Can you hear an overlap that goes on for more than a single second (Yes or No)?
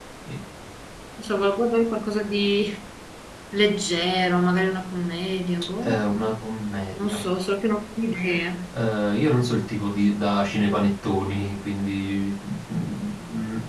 No